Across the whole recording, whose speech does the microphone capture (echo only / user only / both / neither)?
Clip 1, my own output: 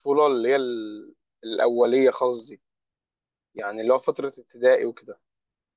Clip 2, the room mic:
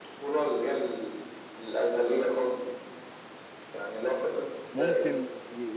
both